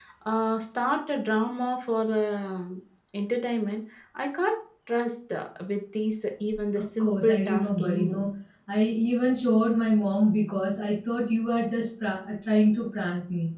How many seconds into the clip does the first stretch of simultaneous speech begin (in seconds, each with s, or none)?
7.0 s